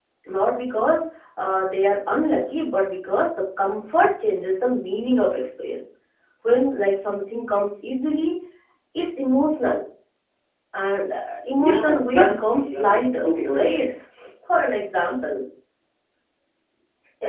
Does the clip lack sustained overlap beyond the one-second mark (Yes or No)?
No